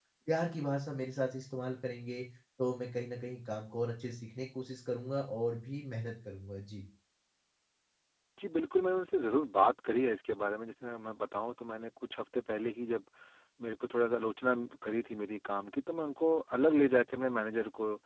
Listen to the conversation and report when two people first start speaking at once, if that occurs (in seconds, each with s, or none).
none